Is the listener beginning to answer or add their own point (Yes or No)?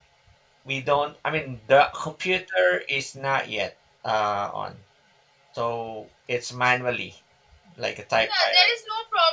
Yes